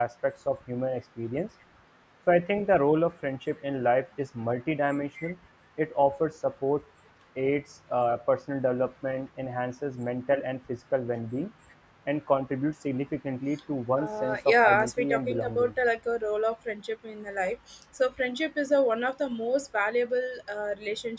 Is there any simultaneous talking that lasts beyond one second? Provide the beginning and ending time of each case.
14.0-15.7

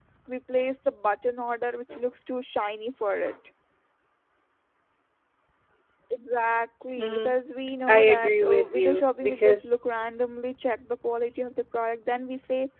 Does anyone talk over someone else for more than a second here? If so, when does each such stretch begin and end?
7.9-9.7

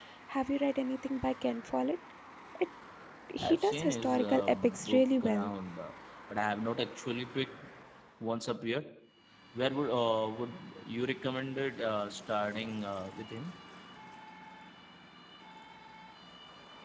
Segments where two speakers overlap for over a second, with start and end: 3.4-5.5

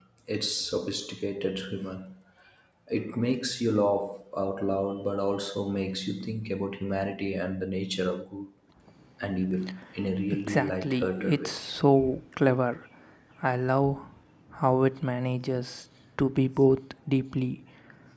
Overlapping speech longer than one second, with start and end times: 10.3-11.5

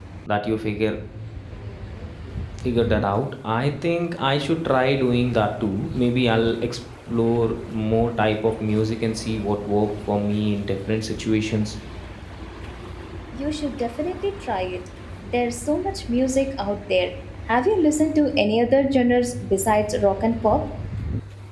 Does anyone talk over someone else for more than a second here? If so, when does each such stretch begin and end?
none

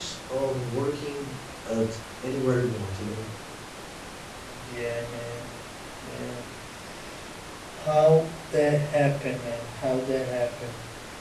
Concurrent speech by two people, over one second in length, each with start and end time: none

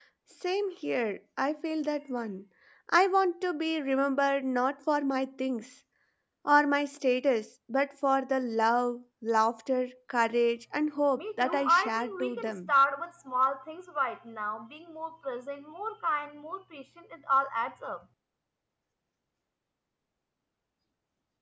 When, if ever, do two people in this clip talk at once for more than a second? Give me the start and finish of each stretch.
11.2-12.7

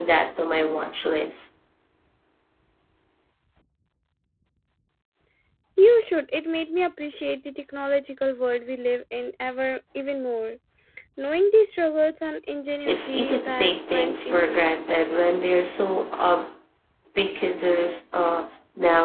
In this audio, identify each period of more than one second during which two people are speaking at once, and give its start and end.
12.8-14.7

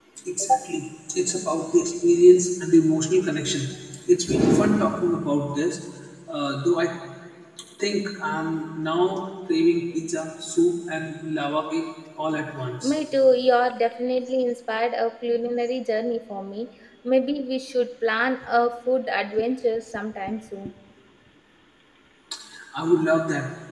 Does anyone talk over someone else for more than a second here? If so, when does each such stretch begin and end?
none

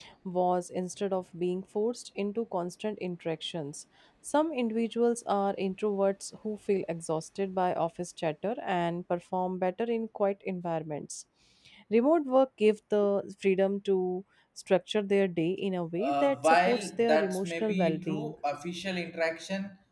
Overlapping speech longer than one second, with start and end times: 16.0-18.3

